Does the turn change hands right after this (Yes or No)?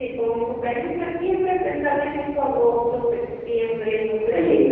Yes